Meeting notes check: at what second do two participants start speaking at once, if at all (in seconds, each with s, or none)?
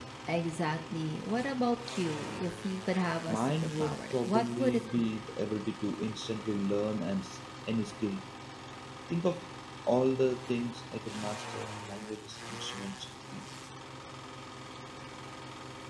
3.3 s